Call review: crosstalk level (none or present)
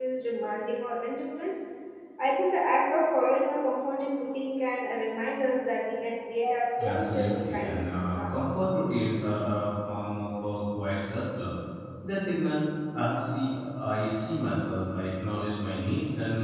present